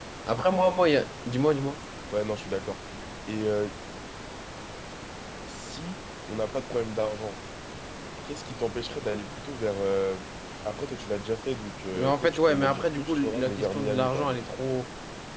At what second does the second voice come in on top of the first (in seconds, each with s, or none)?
11.9 s